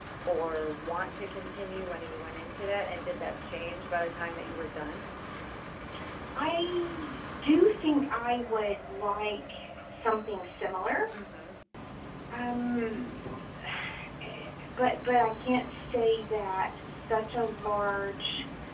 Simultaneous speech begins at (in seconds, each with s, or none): none